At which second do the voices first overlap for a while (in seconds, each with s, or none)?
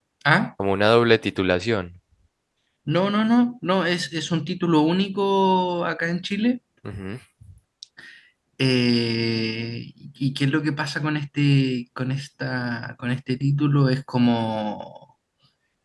none